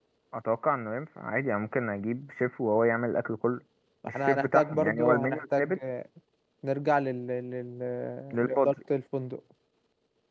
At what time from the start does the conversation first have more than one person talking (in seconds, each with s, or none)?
4.1 s